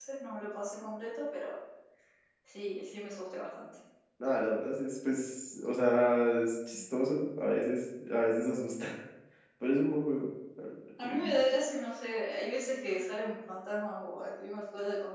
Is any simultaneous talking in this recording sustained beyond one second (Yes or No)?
No